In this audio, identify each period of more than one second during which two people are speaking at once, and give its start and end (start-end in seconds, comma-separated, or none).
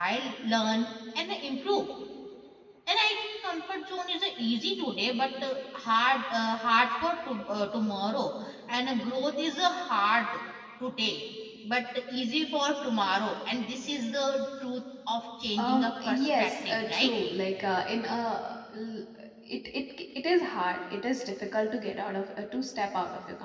15.6-17.1